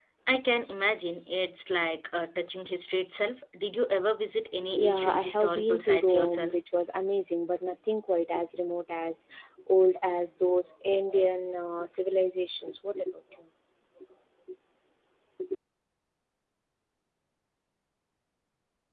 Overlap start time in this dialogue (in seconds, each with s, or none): 4.6 s